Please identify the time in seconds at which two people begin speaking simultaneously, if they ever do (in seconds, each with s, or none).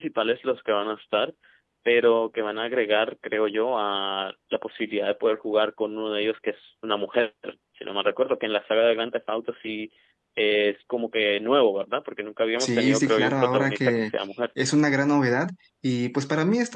12.6 s